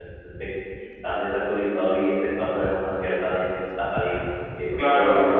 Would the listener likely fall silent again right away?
No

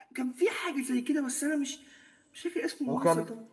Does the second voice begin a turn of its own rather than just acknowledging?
Yes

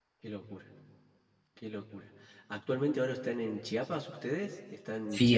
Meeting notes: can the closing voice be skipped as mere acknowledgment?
No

